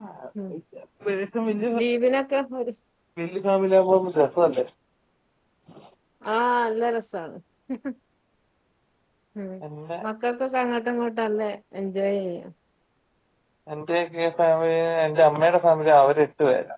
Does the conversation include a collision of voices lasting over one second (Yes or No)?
No